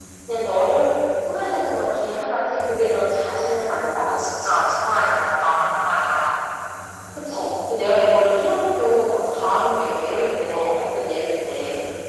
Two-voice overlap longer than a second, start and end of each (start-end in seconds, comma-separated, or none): none